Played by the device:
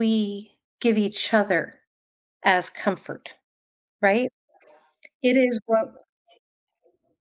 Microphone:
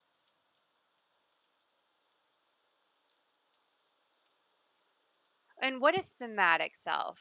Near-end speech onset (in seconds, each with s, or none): 5.6 s